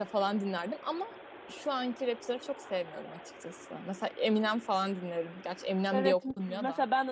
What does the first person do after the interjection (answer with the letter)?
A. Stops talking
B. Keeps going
A